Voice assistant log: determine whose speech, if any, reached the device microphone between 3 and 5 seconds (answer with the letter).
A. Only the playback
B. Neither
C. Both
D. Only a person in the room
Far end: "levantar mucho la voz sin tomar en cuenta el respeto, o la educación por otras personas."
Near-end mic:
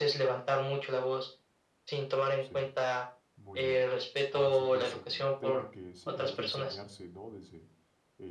C